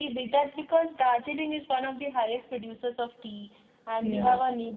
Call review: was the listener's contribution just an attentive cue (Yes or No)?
Yes